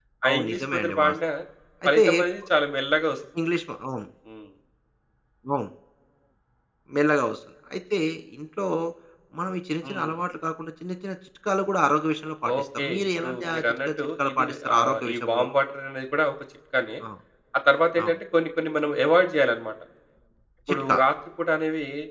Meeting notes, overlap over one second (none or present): present